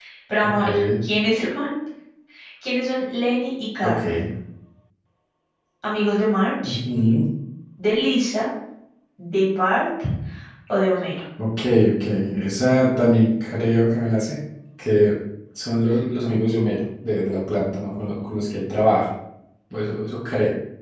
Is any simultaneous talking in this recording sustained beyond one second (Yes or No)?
No